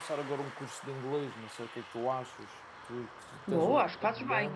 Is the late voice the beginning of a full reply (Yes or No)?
Yes